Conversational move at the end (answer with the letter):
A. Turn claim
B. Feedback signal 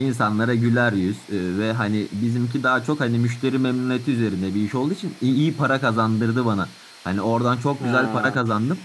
B